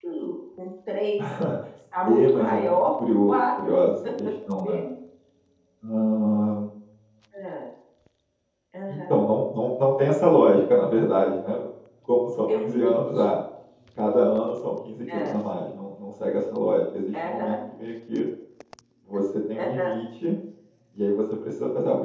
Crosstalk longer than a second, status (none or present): present